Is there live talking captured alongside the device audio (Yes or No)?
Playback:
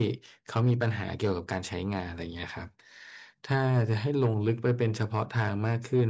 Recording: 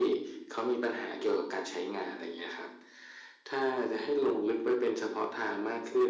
No